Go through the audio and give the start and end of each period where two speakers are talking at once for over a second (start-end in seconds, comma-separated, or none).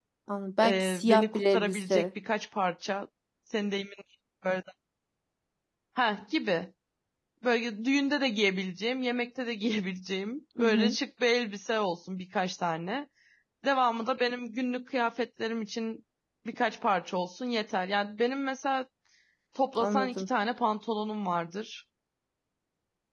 0.6-2.1